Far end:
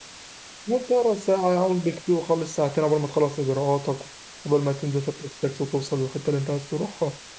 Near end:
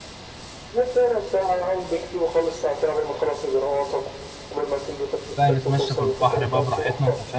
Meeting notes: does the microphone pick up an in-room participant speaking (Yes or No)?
Yes